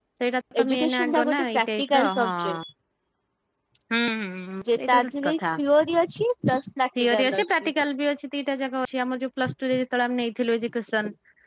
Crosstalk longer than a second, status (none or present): present